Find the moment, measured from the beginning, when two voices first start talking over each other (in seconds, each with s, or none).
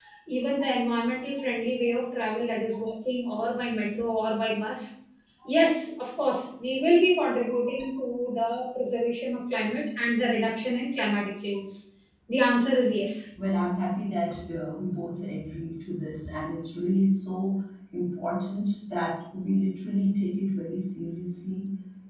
none